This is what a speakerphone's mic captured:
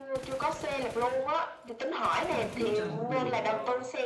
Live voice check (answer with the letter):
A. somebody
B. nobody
A